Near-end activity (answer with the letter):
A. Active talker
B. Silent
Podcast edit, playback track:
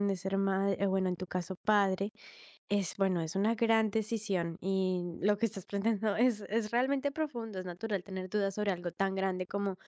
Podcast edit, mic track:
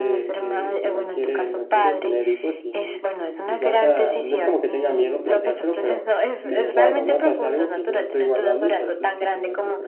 A